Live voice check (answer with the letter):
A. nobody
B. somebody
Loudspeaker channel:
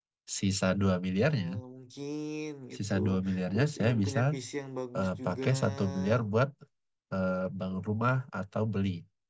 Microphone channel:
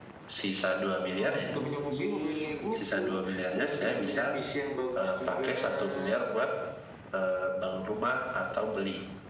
B